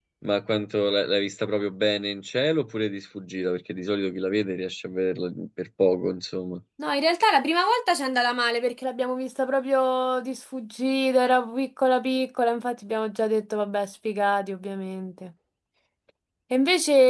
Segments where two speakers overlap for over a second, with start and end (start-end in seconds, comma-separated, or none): none